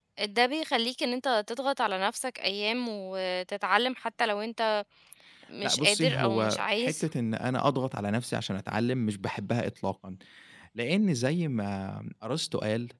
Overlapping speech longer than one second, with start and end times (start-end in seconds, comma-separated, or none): 5.6-7.0